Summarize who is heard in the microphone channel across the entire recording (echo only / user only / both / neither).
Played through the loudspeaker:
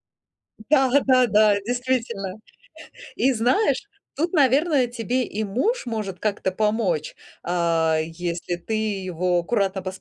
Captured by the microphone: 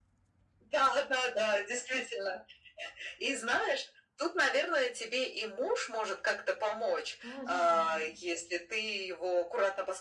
both